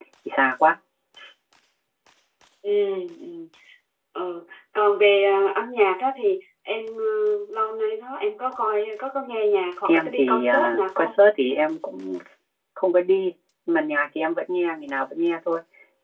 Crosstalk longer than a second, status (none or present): present